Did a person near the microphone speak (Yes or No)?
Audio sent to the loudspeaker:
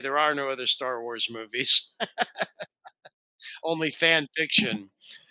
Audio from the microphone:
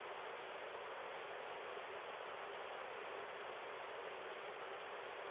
No